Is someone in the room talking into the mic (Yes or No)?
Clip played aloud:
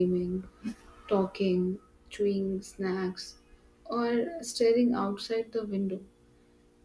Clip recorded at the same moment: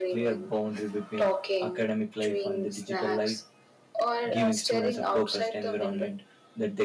Yes